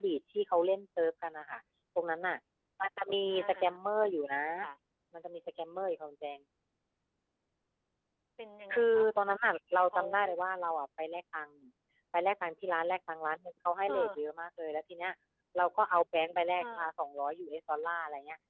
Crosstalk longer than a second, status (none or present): none